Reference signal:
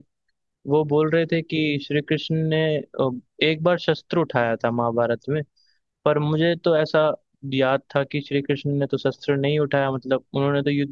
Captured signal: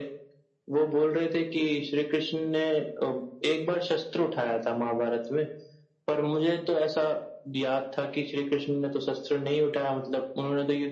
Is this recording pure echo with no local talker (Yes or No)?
Yes